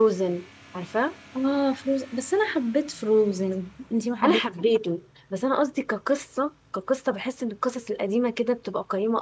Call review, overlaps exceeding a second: none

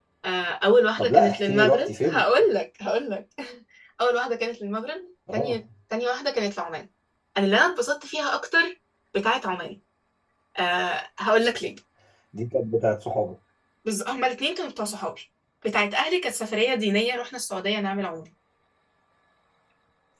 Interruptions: present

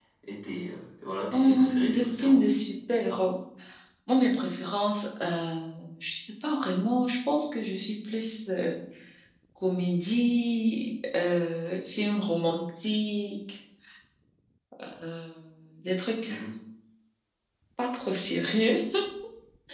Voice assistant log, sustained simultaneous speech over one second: present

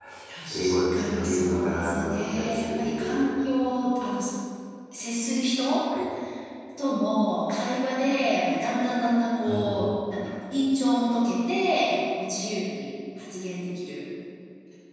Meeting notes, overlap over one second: present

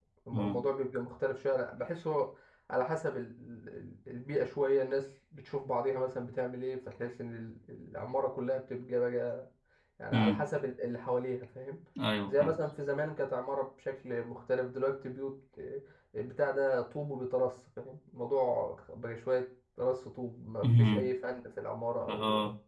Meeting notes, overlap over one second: none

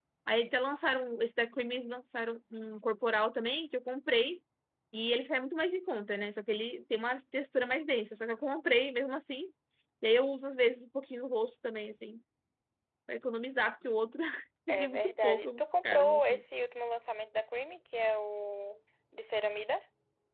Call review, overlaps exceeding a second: present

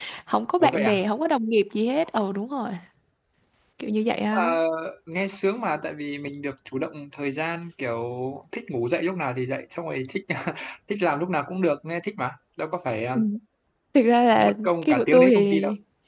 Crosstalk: present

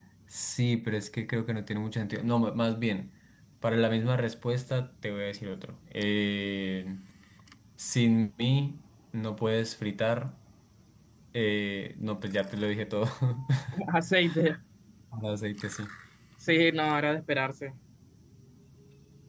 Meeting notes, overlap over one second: none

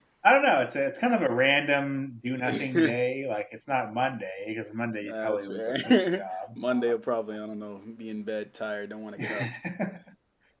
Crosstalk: present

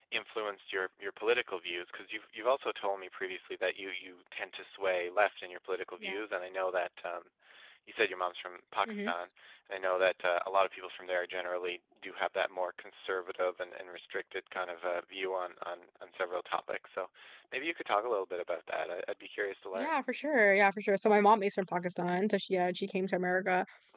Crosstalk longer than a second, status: none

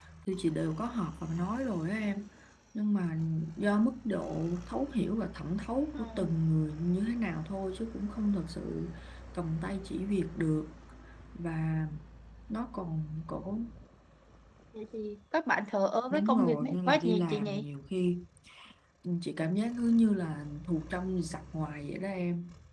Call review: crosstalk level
present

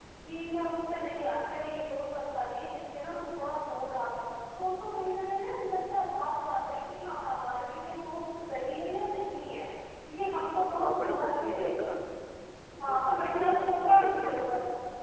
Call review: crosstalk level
present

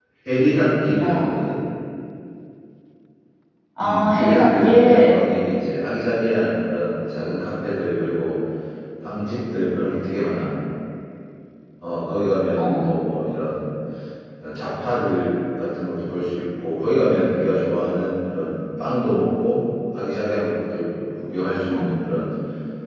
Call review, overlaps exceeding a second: present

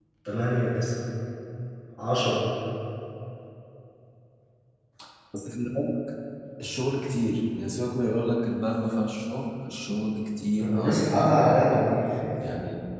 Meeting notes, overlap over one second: present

